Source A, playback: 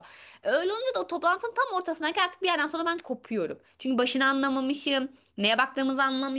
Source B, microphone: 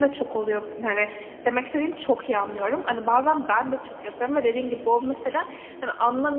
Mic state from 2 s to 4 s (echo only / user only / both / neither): user only